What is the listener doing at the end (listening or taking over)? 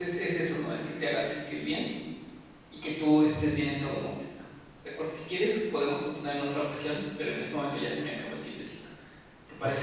taking over